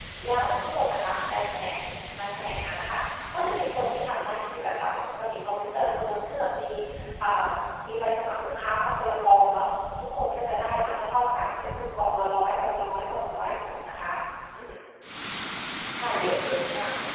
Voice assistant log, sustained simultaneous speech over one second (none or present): present